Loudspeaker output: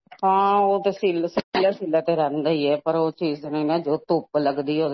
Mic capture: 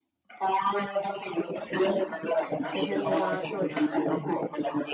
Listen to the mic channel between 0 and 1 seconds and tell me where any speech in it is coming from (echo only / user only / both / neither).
echo only